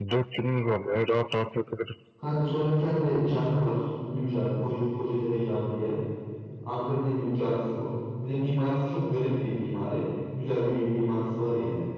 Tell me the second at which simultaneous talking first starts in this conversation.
none

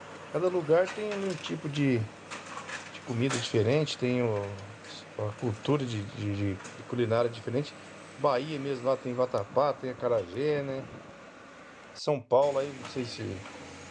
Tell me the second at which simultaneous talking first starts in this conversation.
none

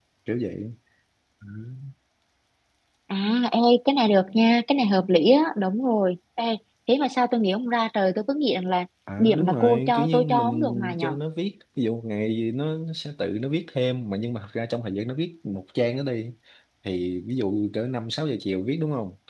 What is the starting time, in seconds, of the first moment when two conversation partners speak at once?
9 s

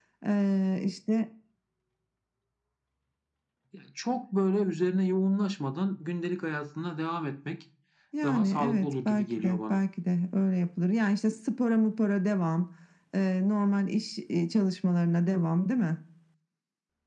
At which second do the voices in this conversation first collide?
8 s

